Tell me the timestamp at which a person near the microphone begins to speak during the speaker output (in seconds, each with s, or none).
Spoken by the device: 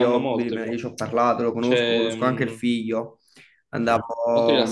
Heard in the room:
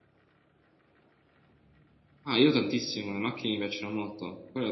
2.2 s